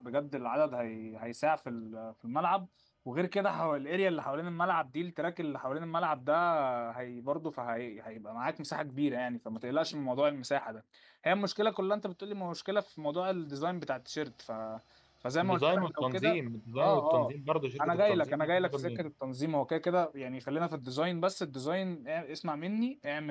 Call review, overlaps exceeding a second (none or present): present